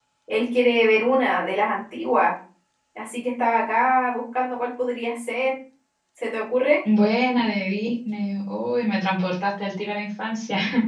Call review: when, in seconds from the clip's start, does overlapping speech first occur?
none

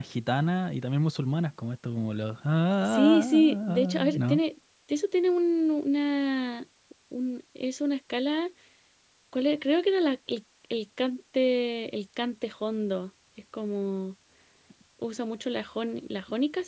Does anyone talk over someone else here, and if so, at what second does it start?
2.8 s

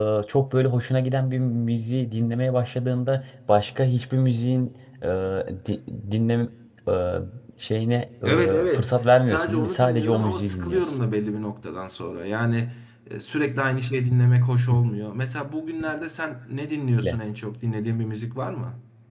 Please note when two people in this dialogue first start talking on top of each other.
8.2 s

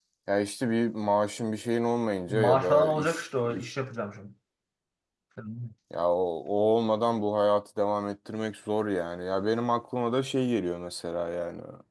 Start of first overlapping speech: 2.3 s

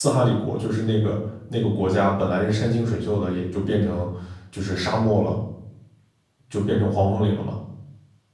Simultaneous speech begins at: none

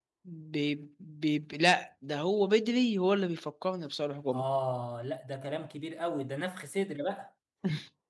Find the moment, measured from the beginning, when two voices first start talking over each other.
none

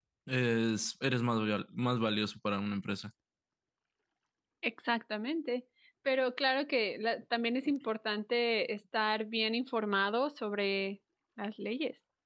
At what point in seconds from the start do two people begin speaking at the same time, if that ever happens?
none

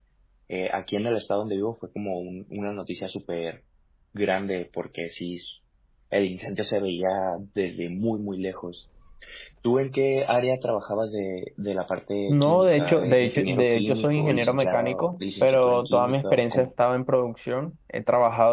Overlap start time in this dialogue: 12.3 s

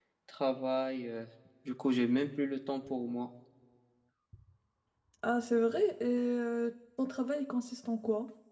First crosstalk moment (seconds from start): none

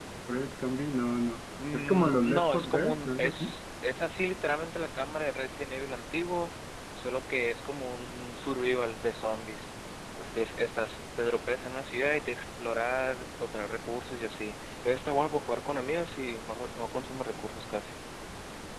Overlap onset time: 1.6 s

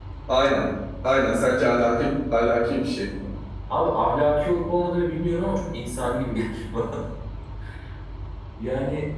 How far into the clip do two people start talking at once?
none

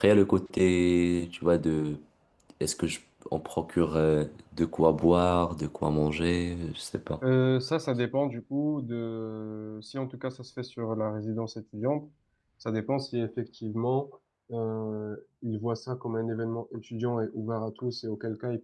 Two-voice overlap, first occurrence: none

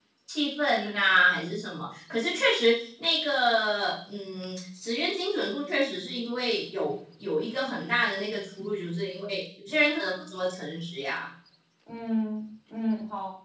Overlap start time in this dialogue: none

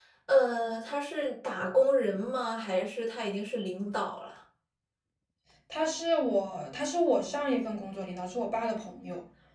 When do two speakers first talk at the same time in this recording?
none

